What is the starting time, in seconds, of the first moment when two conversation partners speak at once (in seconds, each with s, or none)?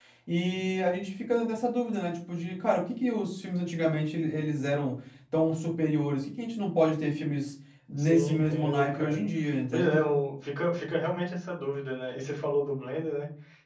8.0 s